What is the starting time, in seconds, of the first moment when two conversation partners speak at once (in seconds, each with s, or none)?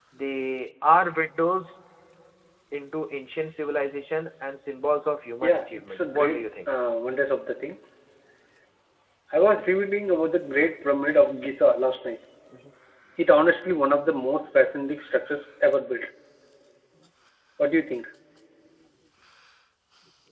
5.4 s